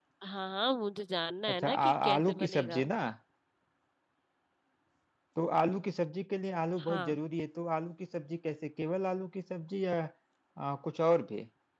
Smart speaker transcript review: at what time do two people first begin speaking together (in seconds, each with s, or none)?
1.5 s